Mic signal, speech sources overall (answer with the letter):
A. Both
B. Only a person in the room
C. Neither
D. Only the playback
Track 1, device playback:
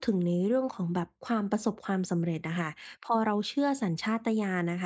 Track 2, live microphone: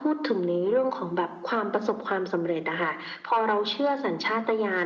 D